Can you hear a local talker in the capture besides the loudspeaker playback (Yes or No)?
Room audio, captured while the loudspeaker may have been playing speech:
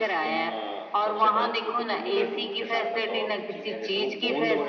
Yes